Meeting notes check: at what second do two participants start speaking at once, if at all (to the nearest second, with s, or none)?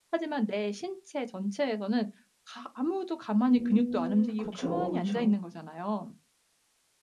3 s